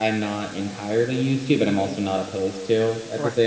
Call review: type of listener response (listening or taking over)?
taking over